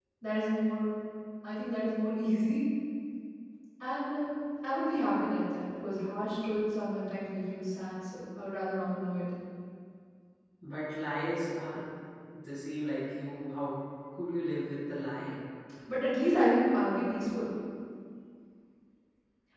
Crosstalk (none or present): none